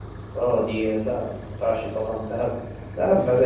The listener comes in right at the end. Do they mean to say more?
No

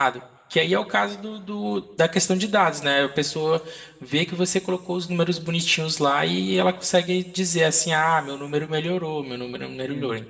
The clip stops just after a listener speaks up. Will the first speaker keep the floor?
No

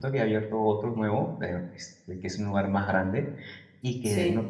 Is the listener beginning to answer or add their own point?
No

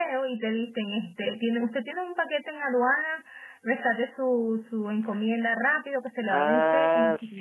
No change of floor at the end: No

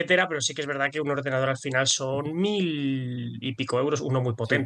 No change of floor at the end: No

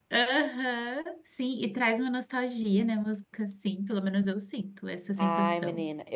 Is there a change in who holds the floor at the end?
Yes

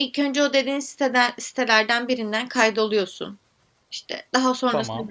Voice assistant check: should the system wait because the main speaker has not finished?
Yes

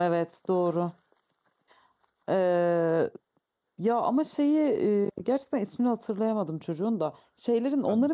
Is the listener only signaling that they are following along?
Yes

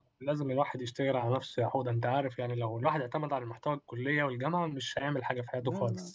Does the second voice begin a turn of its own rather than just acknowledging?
Yes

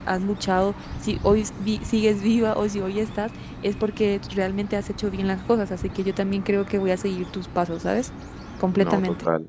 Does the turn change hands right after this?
Yes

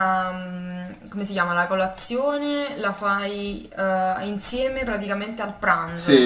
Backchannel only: No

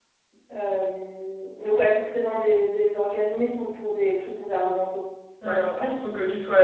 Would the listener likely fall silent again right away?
No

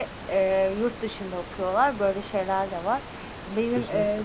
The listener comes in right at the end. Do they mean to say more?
No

